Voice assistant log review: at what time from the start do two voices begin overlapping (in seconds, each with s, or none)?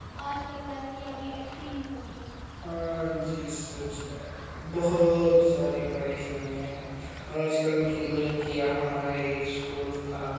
none